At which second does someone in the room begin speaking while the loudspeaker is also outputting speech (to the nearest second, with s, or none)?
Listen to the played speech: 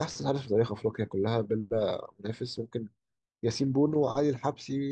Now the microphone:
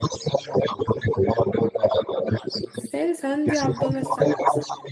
3 s